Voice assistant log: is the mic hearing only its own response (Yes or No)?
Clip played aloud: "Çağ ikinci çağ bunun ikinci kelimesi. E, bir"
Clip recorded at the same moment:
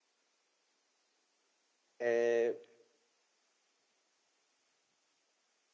No